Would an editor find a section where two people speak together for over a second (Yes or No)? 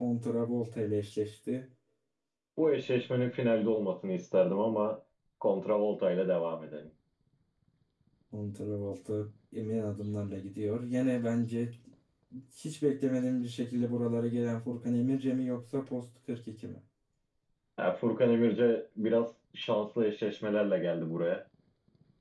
No